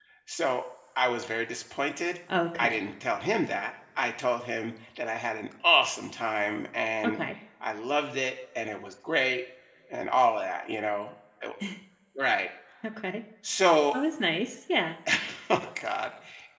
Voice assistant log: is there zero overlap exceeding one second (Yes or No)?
Yes